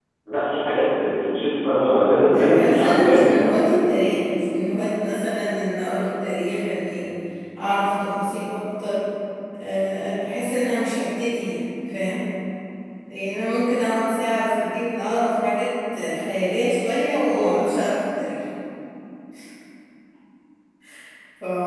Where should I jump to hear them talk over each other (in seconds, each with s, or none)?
2.3 s